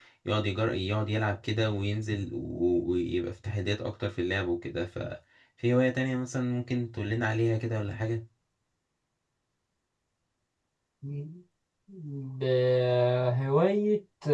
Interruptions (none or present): none